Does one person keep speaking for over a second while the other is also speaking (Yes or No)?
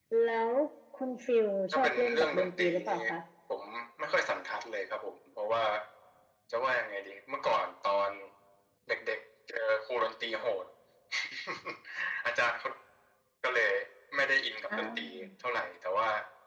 Yes